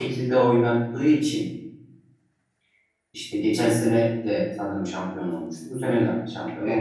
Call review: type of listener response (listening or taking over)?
taking over